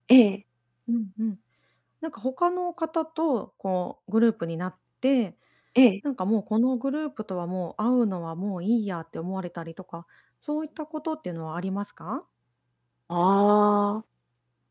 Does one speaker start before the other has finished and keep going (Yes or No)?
No